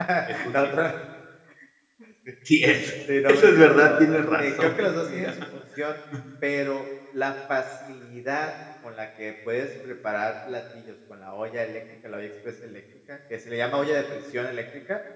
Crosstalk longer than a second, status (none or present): present